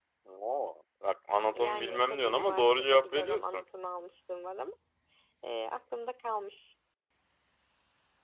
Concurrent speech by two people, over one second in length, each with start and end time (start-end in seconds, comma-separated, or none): 1.5-3.6